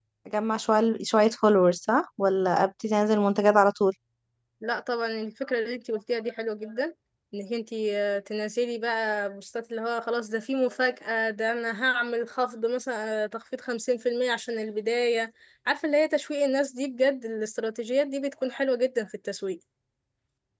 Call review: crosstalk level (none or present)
none